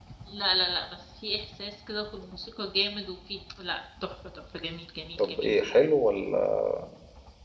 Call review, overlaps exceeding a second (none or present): none